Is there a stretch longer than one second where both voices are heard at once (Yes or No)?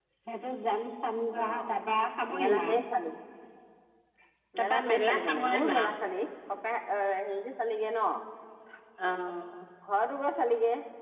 Yes